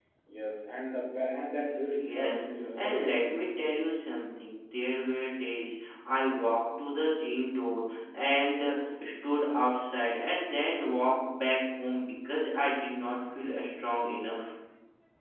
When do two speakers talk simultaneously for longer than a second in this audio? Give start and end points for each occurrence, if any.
2.0-3.5

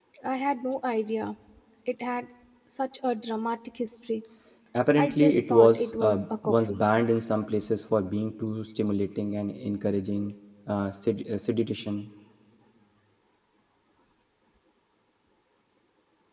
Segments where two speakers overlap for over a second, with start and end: 5.0-6.8

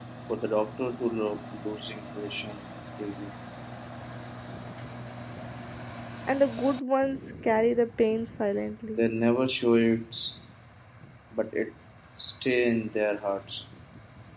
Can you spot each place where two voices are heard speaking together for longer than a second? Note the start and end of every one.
none

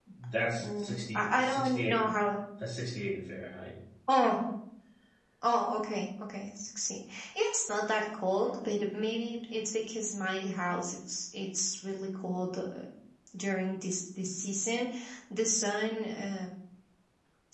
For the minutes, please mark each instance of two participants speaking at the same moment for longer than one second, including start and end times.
0.6-2.1

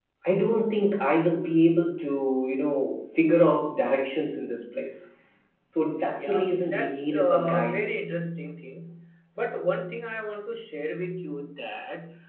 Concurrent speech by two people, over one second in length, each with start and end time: 6.1-7.9

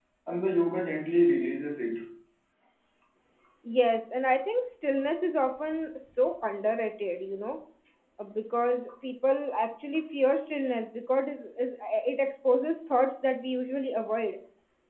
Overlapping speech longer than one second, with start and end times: none

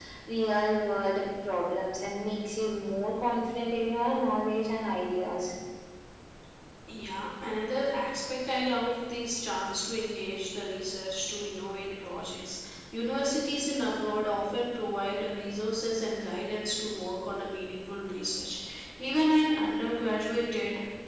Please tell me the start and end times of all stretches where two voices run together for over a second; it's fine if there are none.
none

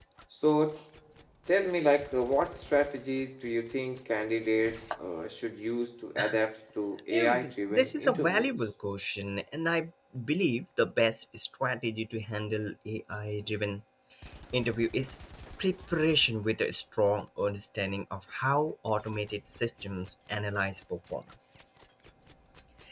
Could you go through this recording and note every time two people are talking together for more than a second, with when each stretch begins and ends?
7.2-8.7

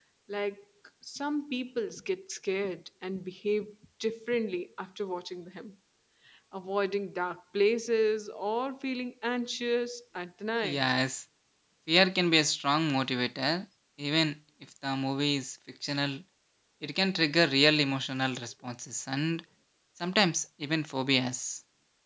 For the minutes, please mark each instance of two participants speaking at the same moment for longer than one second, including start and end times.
none

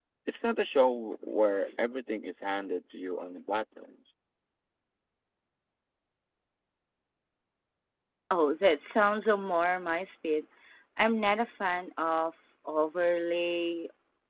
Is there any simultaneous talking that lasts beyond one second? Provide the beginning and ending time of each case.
none

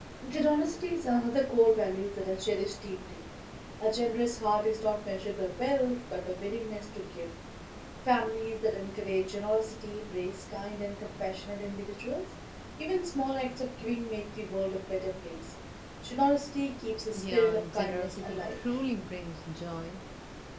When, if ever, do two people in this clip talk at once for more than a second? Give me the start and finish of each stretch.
17.1-18.6

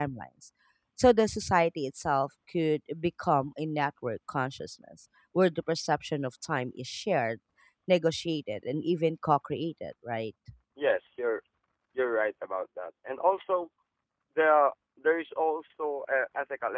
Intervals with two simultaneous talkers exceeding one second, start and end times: none

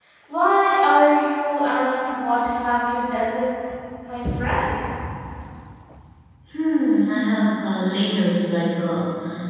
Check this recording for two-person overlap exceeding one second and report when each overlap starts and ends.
none

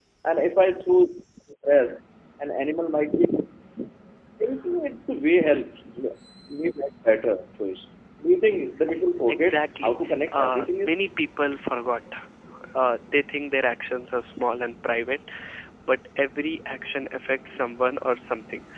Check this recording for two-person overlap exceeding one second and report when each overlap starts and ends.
9.3-11.0

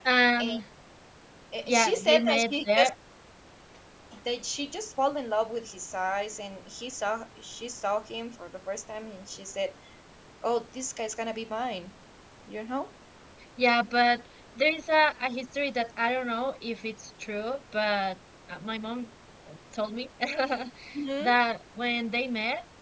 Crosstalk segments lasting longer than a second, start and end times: 1.6-2.9

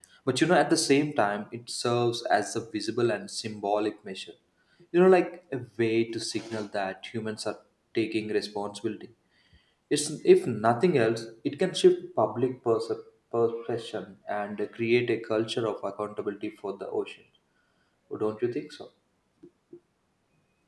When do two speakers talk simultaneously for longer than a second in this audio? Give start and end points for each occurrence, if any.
none

